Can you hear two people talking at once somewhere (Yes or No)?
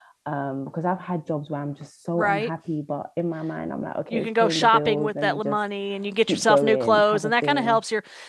Yes